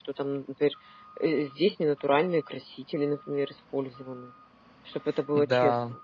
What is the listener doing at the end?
taking over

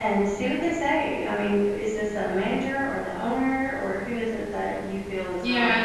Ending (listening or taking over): taking over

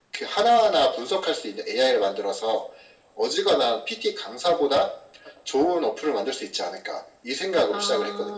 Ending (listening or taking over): taking over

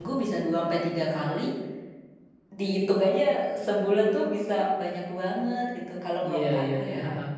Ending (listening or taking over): taking over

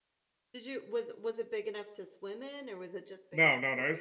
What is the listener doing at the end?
taking over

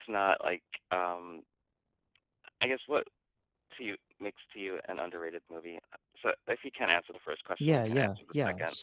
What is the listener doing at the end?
taking over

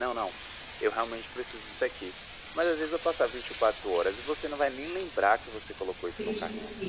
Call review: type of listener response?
taking over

